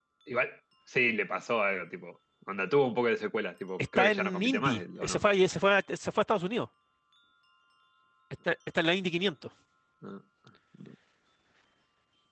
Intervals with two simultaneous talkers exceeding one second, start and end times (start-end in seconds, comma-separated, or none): 4.0-5.2